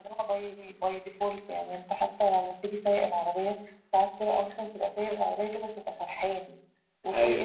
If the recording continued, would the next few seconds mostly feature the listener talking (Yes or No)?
No